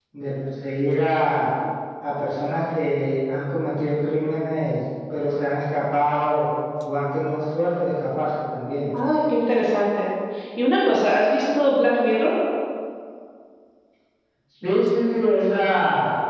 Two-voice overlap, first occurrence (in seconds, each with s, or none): none